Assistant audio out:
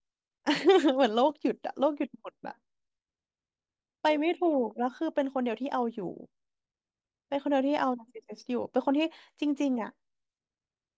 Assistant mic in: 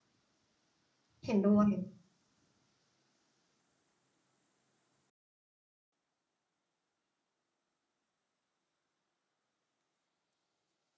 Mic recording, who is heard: user only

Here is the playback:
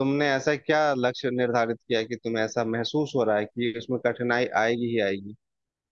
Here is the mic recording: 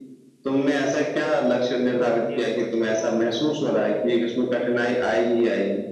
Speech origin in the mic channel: both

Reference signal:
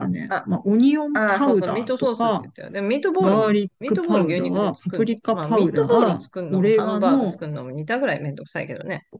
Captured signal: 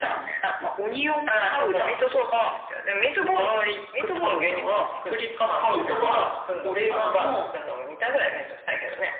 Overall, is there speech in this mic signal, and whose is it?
echo only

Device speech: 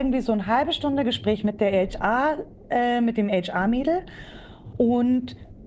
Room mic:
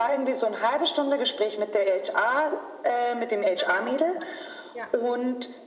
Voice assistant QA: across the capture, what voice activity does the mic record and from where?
both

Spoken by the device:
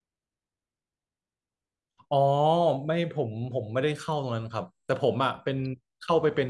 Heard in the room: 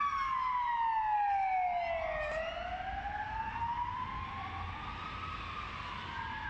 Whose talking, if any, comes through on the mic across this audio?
neither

